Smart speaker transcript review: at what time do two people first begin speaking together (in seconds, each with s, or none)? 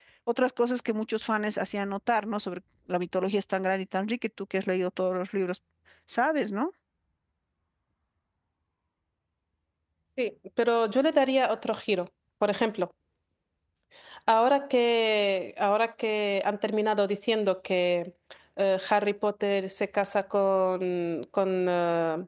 none